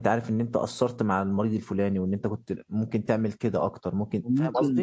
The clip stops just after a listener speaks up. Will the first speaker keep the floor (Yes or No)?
No